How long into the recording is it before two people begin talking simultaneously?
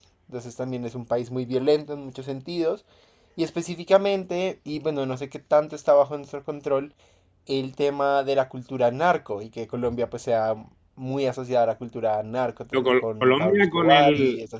12.7 s

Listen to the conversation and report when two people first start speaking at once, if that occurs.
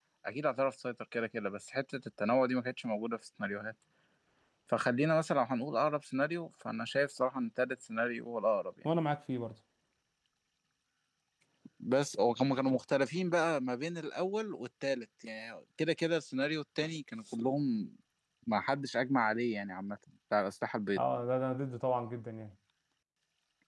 none

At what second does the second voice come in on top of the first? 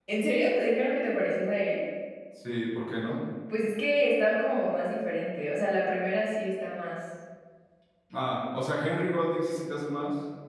none

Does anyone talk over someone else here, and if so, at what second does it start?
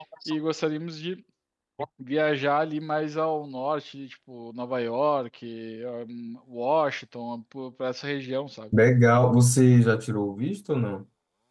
none

